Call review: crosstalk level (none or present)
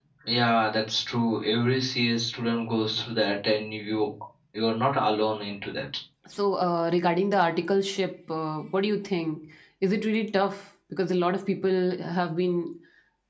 none